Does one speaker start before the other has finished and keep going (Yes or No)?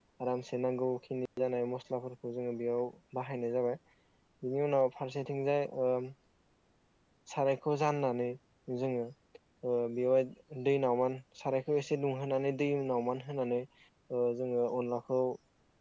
No